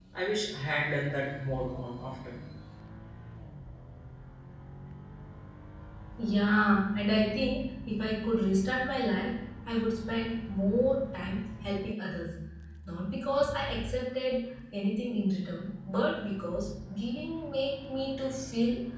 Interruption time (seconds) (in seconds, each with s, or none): none